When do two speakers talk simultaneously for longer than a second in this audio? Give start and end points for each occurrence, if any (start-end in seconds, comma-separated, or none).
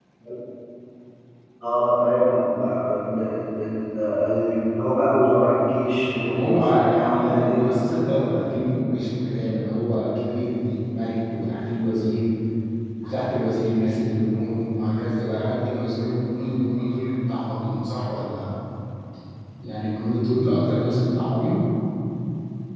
6.0-8.3